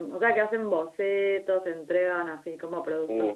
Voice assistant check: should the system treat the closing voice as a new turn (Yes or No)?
Yes